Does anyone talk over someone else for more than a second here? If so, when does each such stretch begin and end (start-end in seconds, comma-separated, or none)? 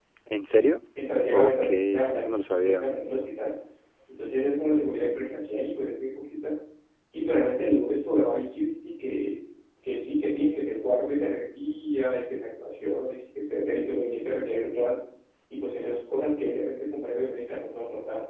1.3-2.9